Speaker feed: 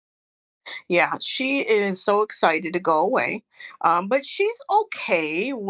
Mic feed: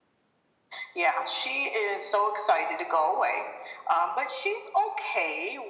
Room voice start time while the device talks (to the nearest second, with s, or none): none